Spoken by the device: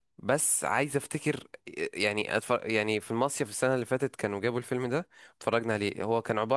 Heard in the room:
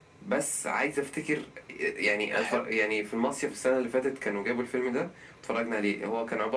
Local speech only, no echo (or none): بحب